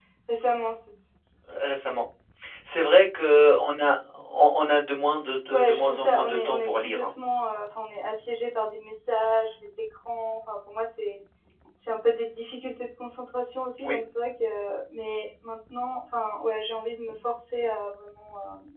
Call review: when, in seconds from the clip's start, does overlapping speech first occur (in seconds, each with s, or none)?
5.5 s